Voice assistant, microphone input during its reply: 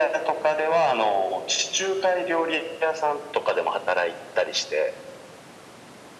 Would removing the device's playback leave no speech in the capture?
Yes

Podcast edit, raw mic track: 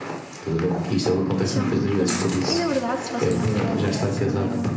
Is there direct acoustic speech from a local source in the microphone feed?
Yes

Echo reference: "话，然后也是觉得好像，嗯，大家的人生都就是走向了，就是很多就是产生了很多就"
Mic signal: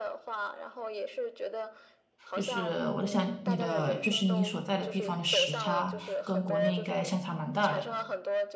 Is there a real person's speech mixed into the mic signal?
Yes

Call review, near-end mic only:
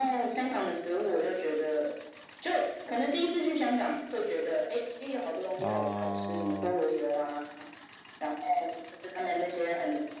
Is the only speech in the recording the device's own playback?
No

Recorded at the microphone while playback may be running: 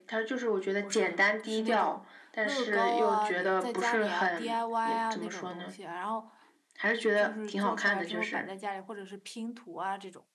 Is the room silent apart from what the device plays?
No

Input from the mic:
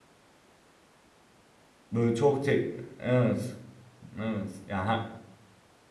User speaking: Yes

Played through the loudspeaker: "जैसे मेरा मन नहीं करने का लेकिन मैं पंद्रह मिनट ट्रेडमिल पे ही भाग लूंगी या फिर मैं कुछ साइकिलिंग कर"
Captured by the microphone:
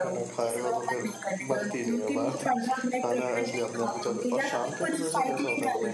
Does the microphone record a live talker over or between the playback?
Yes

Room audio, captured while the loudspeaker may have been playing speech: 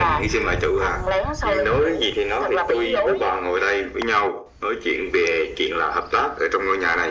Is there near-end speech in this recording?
No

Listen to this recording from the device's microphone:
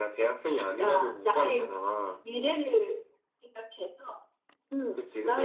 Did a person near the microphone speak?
No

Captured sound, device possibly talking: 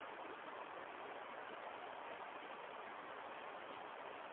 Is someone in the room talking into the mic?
No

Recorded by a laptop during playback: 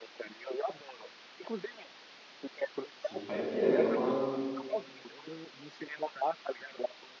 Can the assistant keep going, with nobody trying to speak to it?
No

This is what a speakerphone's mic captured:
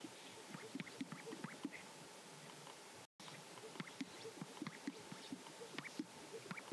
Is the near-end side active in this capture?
No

